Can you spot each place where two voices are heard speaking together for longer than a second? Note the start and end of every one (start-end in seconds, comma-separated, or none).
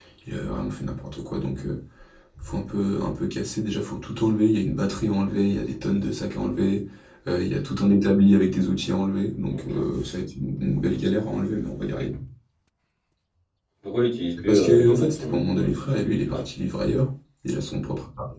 14.4-16.4